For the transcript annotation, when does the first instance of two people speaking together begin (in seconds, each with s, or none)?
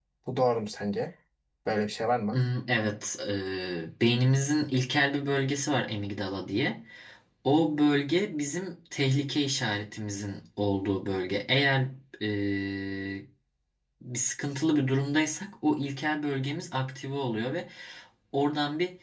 none